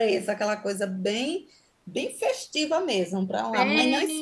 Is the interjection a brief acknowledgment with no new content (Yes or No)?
No